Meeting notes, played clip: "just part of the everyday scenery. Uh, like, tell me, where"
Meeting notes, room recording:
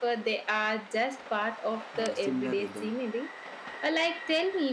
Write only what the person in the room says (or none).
uh similar rhythm.